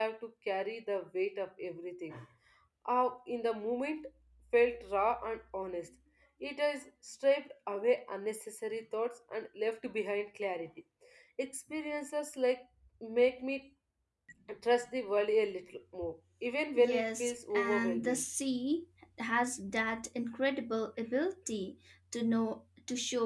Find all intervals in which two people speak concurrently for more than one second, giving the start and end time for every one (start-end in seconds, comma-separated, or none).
16.8-18.2